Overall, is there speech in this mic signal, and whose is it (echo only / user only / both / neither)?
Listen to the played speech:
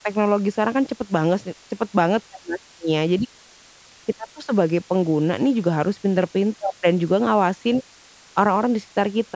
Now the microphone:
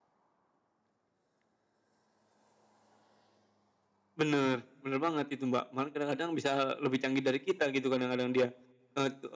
user only